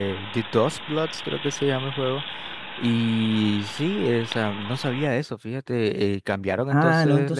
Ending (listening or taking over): taking over